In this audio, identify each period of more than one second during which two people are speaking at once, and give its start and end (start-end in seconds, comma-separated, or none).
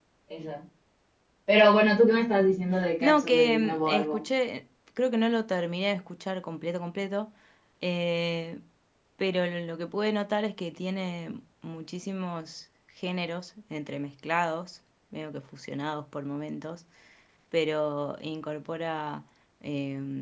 3.0-4.2